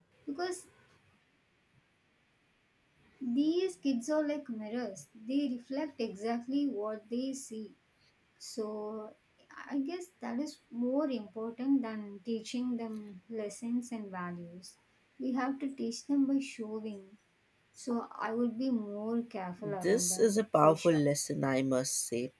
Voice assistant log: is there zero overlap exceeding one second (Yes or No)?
No